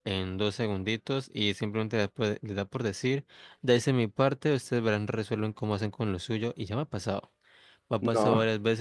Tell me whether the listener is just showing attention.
Yes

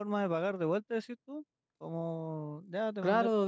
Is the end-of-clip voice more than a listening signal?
Yes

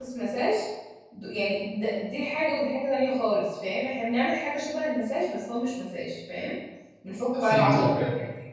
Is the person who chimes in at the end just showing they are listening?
No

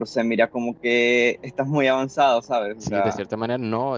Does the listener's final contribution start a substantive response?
Yes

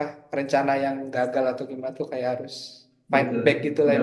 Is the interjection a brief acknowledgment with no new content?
No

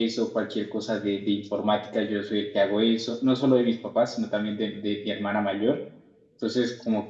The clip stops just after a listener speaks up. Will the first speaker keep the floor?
Yes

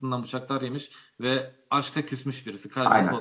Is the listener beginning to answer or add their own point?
Yes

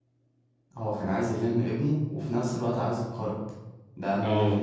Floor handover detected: Yes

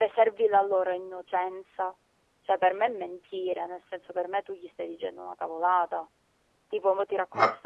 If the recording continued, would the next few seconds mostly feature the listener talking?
No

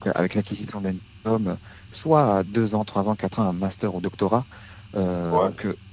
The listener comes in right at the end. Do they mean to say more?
No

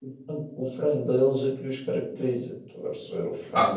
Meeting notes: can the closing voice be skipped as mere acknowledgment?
No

